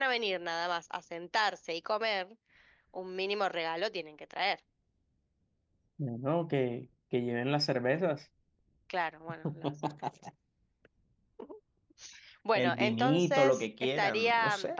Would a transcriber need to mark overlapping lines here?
Yes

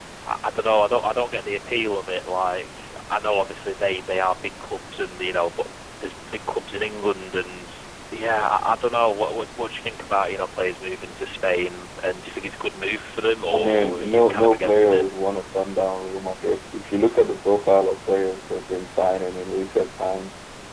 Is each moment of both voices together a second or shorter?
No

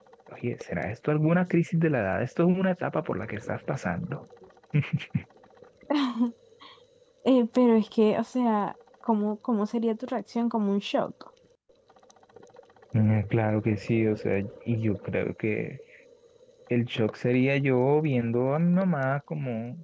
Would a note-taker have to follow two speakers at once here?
No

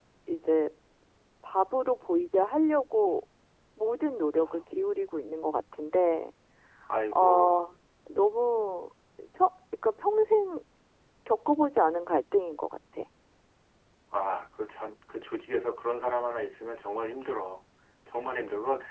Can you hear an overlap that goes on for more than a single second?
No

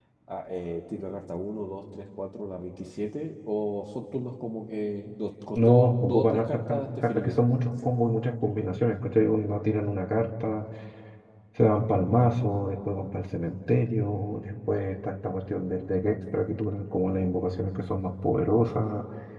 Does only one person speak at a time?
No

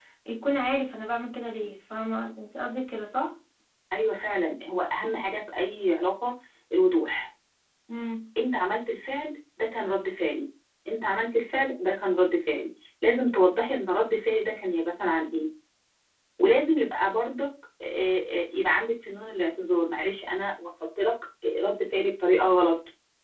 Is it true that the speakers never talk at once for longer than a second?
Yes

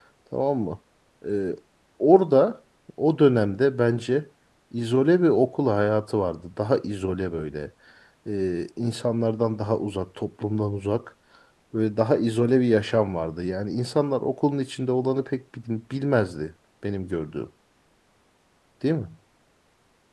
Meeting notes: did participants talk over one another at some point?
No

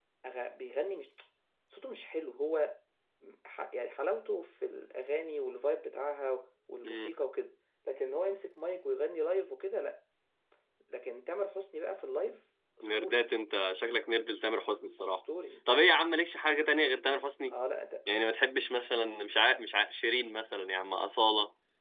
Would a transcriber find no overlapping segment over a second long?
Yes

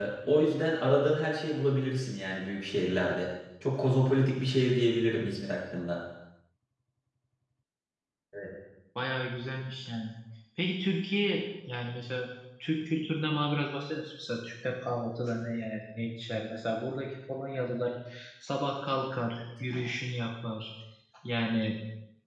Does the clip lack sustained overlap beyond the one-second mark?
Yes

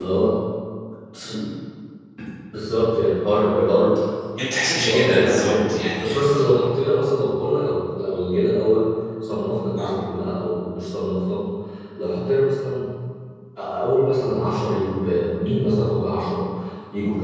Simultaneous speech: Yes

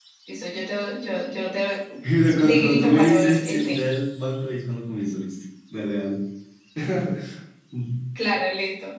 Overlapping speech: Yes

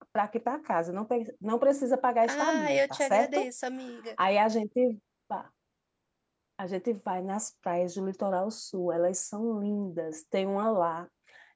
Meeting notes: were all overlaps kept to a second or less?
No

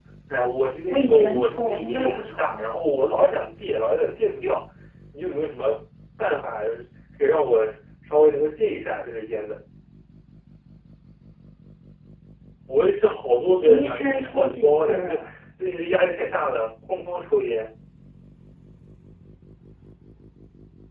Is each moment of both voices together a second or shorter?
No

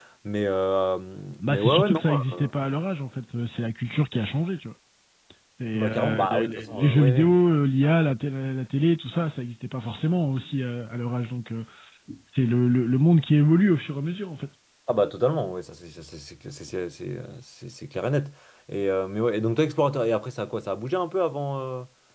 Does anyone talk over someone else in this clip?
Yes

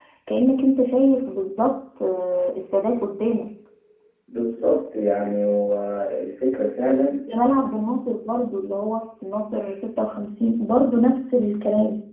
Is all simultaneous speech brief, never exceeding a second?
Yes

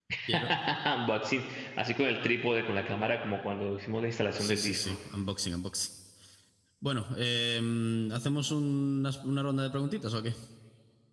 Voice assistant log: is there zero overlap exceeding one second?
Yes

